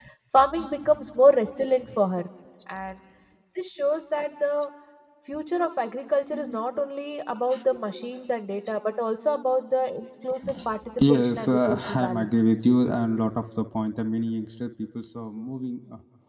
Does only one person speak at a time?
No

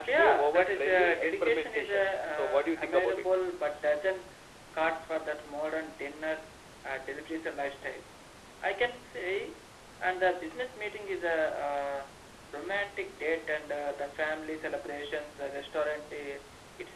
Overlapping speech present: Yes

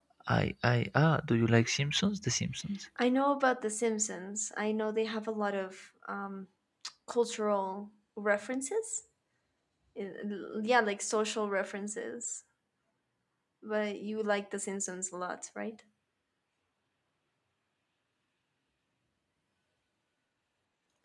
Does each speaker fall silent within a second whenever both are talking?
Yes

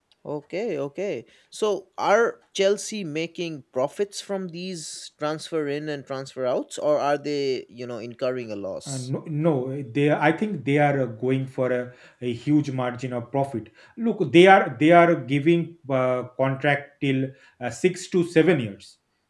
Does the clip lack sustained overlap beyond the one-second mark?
Yes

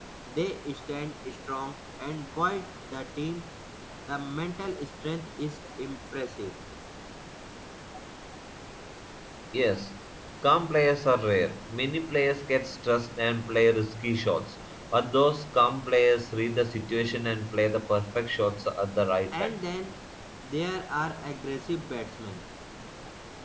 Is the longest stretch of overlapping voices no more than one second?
Yes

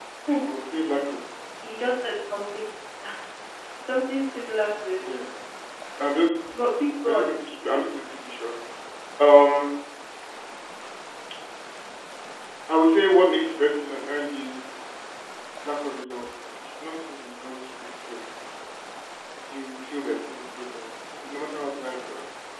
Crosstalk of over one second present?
No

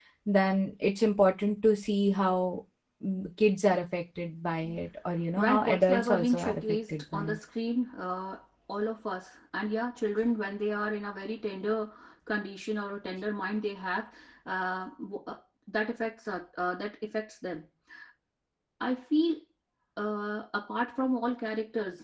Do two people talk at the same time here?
Yes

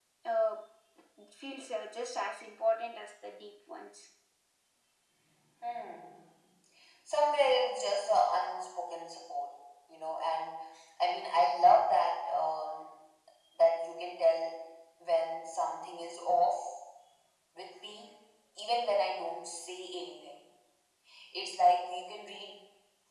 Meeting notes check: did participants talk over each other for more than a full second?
No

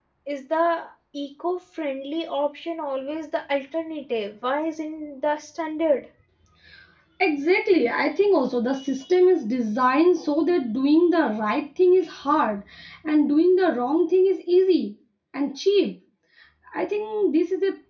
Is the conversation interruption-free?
Yes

